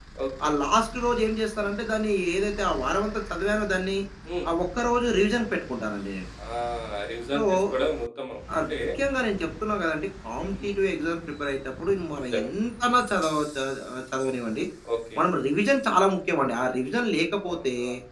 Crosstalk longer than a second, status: none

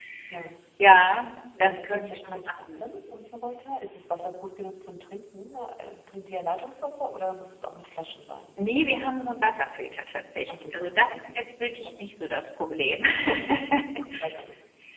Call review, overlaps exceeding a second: present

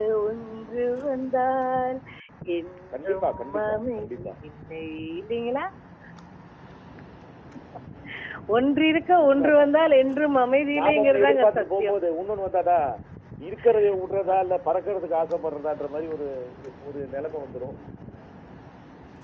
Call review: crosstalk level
present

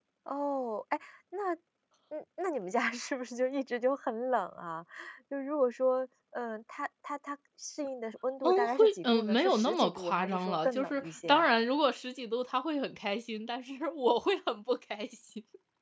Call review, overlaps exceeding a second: present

